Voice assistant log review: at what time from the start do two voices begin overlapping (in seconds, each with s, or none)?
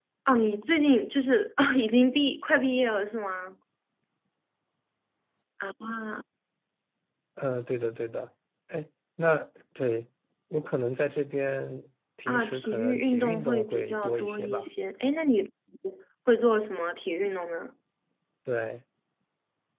12.3 s